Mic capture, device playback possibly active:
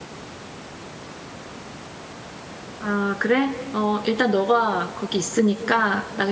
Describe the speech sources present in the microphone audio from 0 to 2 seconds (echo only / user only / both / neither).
neither